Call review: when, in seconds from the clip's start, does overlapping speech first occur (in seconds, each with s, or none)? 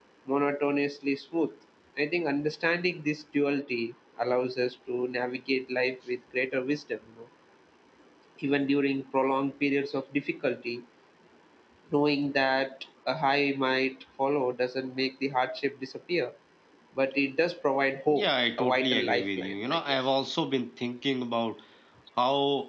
18.1 s